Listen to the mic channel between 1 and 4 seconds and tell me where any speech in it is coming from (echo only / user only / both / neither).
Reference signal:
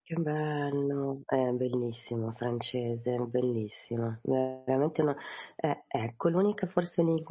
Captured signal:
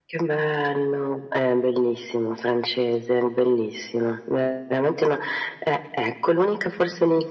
echo only